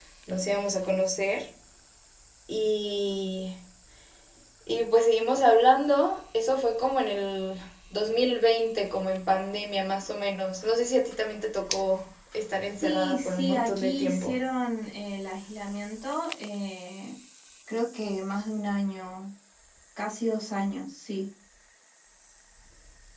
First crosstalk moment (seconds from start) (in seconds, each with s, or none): 12.8 s